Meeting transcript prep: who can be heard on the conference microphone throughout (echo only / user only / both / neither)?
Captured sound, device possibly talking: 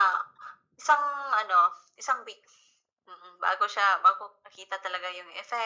echo only